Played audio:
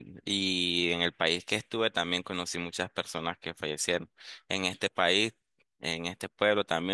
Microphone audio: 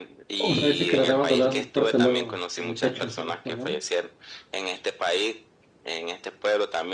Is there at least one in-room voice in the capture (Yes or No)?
Yes